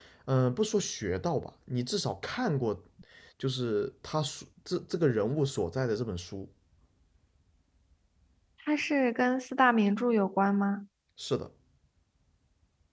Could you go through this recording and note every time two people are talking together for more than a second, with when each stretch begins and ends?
none

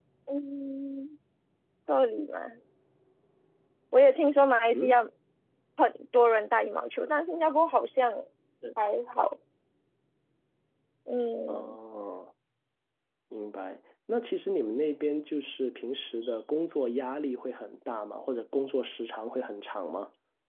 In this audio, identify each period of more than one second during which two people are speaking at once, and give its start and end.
none

